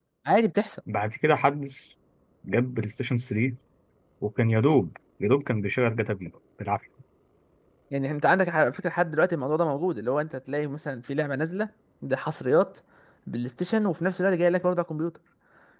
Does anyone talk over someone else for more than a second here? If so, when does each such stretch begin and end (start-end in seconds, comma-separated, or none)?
none